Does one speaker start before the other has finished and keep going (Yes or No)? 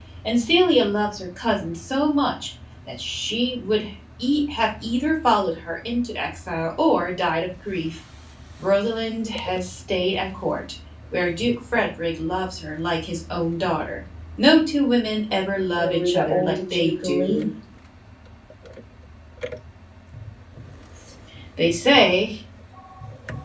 Yes